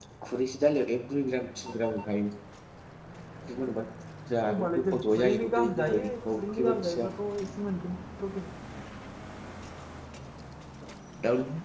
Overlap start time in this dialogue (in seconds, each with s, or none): 4.4 s